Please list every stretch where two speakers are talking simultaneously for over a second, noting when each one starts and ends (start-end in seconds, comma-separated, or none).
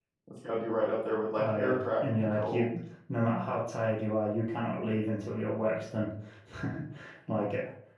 1.4-2.7